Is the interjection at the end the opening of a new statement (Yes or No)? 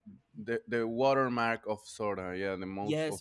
Yes